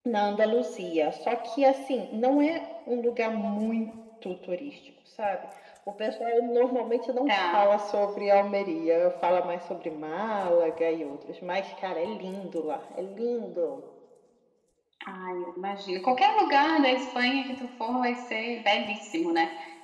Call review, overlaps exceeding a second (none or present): none